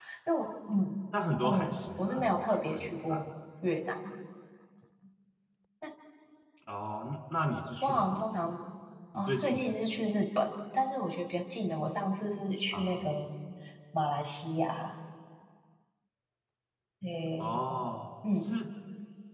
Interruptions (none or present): present